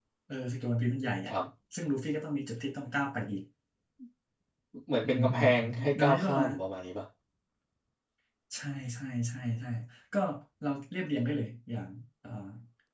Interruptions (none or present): present